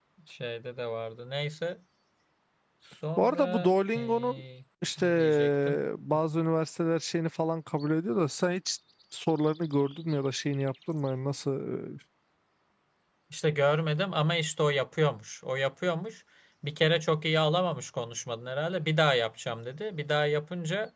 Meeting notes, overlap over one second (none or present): present